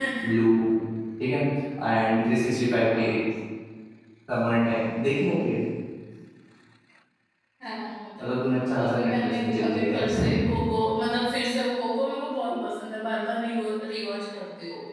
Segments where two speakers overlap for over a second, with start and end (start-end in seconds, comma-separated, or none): 8.8-10.3